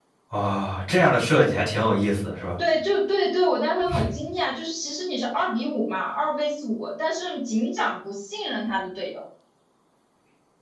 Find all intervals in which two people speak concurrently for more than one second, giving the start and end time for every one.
none

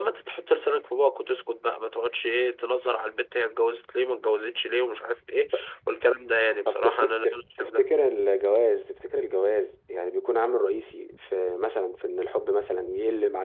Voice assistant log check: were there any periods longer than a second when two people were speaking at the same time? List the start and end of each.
6.7-7.9

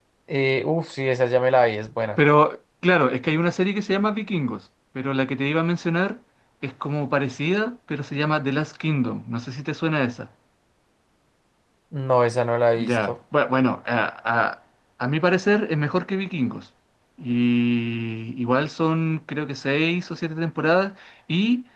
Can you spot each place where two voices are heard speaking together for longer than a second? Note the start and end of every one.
none

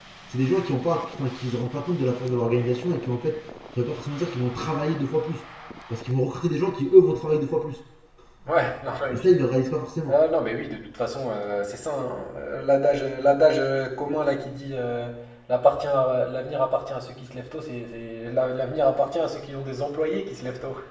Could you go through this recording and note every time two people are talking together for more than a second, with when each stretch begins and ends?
none

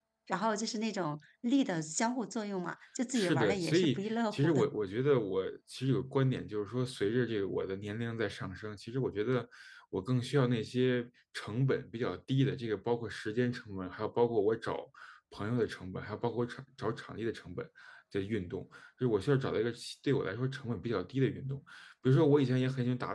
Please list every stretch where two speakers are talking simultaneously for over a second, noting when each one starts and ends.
3.2-4.7

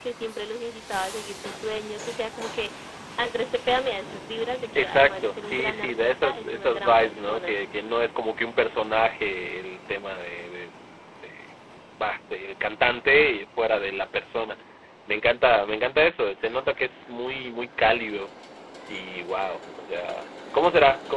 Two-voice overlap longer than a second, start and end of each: 4.8-7.5

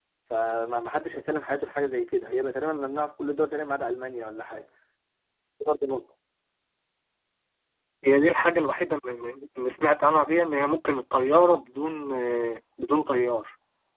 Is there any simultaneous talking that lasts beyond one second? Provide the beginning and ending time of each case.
none

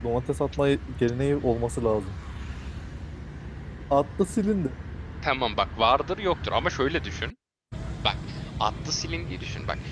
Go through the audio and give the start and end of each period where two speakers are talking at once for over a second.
none

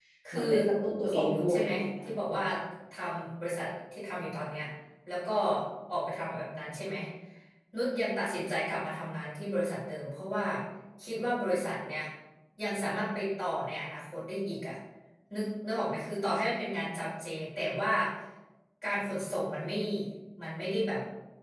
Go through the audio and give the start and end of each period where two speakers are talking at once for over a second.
1.1-2.4

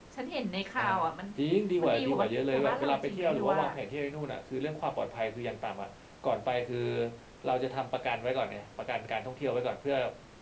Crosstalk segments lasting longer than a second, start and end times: 1.8-3.6

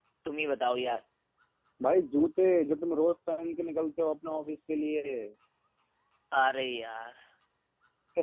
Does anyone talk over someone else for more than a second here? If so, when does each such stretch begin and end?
none

